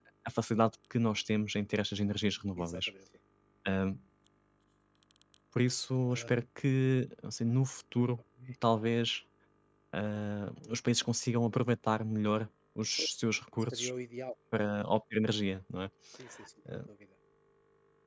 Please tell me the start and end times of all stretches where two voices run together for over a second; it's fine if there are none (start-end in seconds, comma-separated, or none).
none